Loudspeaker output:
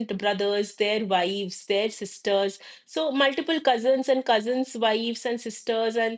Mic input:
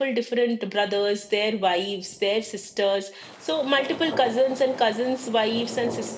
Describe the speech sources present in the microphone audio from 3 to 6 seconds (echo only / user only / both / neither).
echo only